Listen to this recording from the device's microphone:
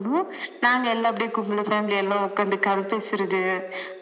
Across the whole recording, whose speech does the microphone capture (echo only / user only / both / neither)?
echo only